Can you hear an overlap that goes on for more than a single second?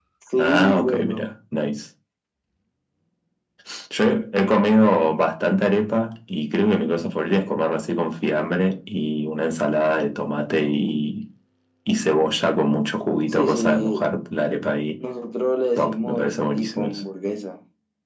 Yes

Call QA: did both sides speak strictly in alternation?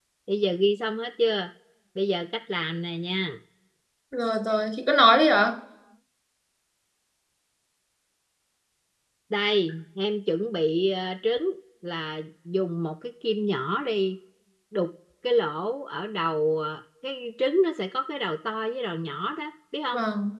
Yes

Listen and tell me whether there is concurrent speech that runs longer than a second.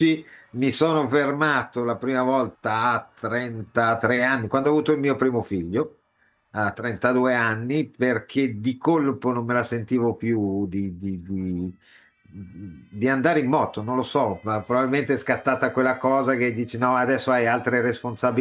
No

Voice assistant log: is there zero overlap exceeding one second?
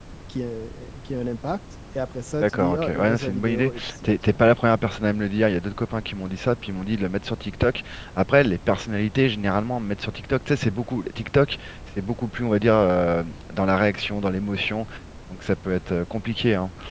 No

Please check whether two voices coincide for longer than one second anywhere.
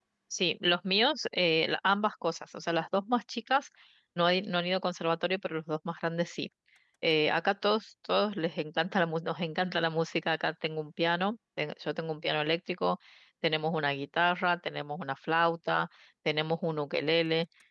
No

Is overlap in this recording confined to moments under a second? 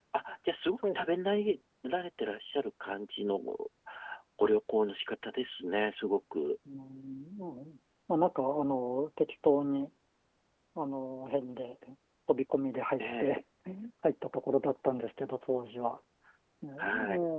Yes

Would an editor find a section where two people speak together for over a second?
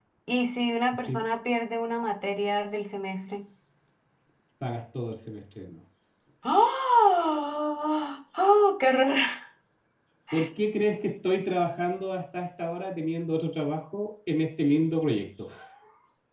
No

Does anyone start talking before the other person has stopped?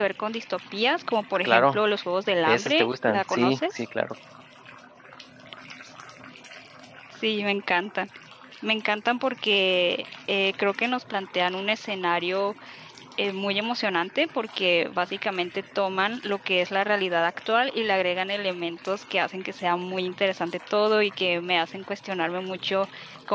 Yes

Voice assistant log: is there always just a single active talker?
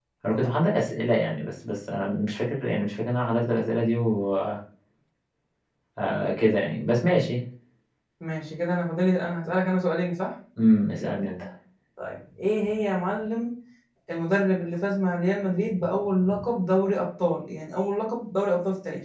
Yes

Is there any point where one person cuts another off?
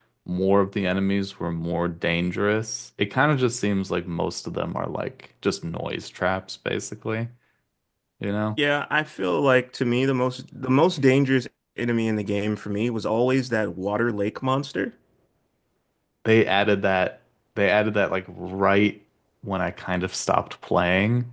No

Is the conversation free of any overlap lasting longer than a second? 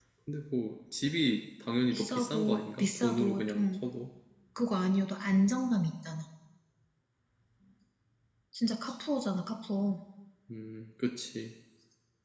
No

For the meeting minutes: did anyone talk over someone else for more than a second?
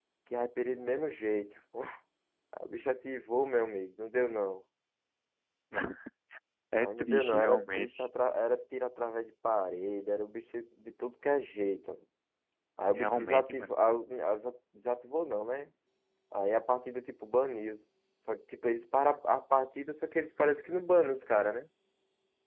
Yes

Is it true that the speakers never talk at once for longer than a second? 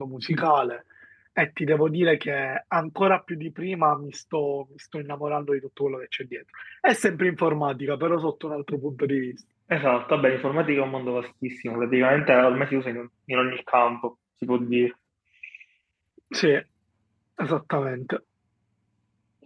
Yes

